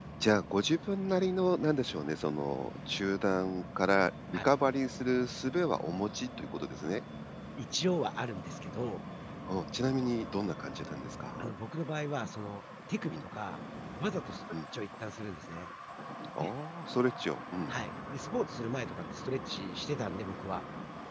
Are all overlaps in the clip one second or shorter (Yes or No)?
Yes